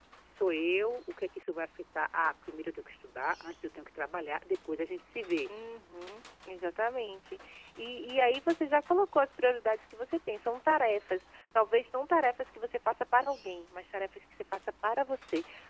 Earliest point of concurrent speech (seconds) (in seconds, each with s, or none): none